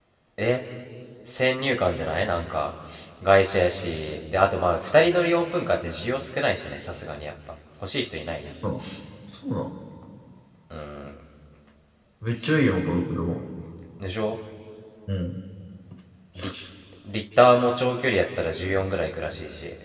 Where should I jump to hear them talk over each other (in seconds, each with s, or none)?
none